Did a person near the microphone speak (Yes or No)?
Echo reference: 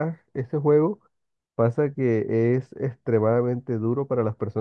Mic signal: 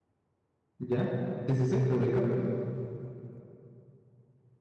Yes